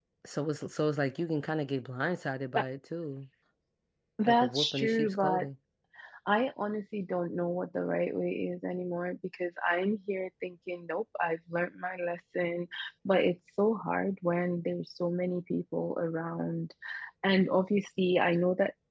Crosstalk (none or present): present